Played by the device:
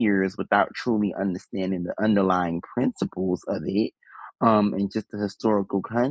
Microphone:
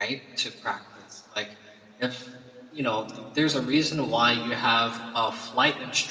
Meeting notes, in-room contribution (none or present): present